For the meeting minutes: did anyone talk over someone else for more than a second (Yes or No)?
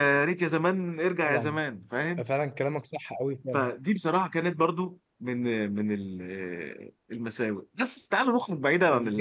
No